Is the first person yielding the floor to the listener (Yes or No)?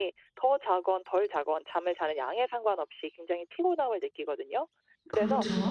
No